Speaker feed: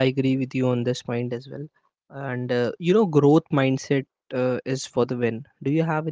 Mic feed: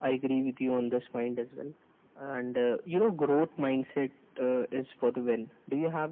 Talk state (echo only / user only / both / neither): echo only